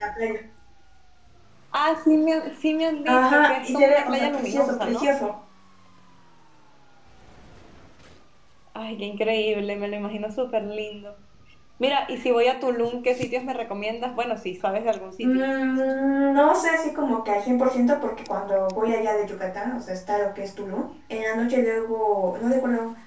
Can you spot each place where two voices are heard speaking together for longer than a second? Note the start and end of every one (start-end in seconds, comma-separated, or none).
3.1-5.1